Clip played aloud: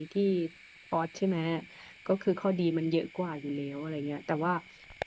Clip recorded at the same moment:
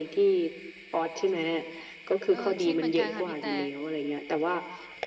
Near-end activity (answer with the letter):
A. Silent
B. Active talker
B